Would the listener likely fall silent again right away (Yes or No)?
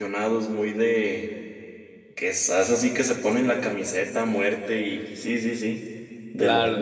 No